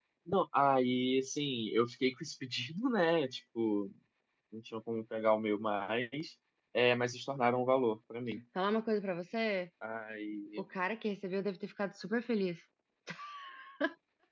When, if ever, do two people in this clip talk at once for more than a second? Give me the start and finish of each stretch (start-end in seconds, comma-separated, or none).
none